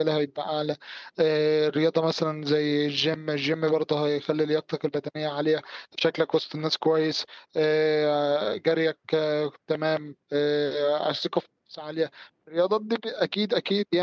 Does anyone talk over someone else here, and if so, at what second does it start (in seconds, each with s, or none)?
none